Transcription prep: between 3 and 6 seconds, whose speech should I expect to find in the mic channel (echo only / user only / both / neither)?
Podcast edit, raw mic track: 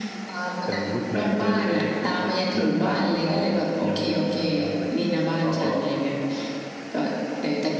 both